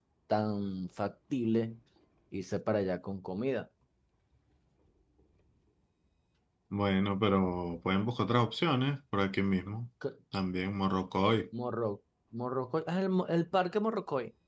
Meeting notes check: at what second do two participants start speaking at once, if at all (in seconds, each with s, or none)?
none